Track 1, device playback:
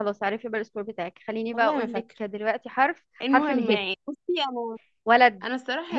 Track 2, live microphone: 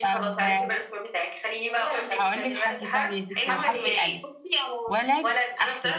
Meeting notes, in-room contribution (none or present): present